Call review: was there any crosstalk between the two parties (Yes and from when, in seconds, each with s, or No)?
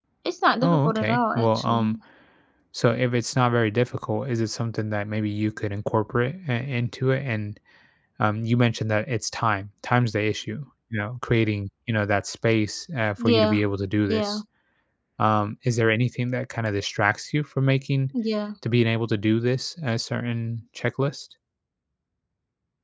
Yes, from 0.6 s